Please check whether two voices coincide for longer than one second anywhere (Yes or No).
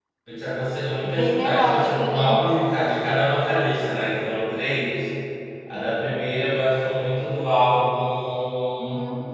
Yes